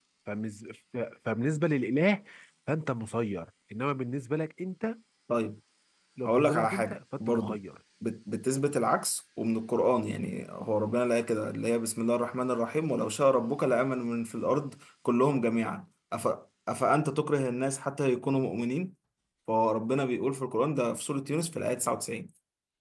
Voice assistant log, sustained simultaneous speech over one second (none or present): present